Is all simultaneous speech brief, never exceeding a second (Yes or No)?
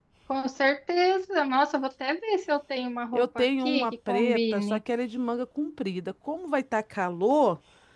No